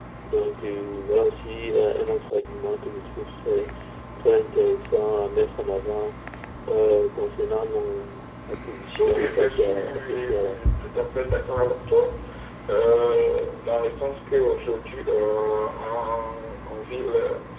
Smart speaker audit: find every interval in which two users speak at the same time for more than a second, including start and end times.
9.0-10.6

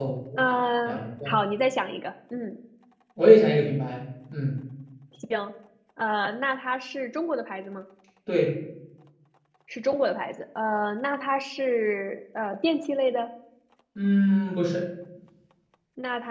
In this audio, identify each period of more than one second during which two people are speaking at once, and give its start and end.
none

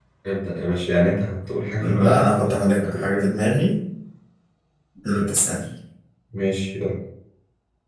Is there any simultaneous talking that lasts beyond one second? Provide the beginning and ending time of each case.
1.8-3.2

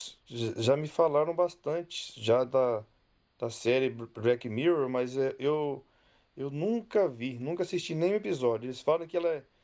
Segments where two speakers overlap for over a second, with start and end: none

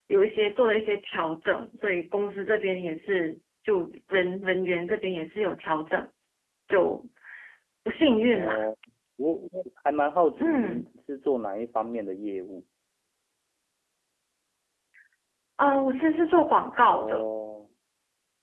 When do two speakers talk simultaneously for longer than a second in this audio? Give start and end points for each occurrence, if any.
none

